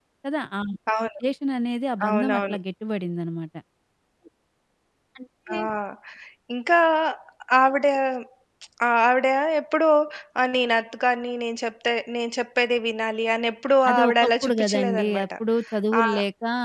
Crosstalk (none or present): present